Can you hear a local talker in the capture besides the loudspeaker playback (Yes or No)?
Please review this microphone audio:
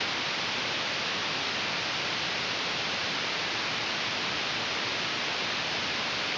No